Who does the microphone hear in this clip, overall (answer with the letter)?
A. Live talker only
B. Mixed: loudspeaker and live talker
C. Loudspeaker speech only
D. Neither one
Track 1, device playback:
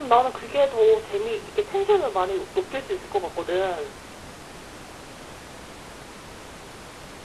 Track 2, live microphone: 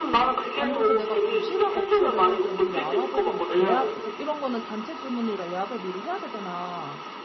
B